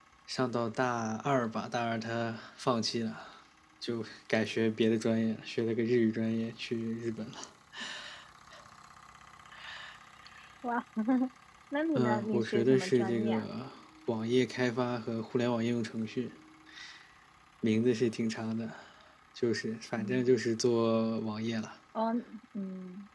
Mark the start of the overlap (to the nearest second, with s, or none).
12 s